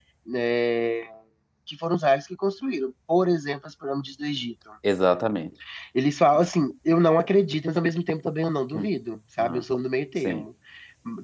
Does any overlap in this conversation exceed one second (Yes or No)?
No